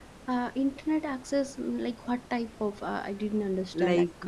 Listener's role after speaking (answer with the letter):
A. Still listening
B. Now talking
B